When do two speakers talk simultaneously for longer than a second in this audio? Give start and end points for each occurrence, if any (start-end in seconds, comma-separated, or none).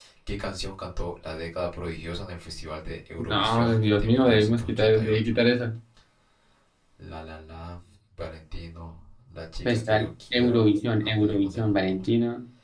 3.3-5.3, 9.7-12.1